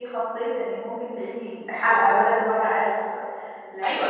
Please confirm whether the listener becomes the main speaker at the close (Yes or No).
Yes